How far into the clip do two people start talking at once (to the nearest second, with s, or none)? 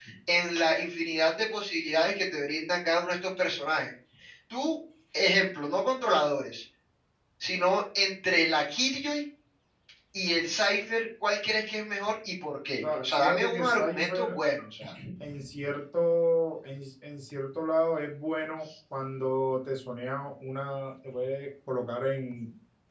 13 s